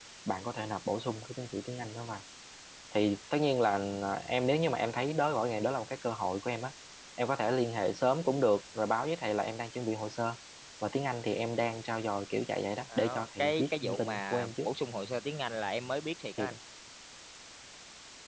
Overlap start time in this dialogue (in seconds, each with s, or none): 12.9 s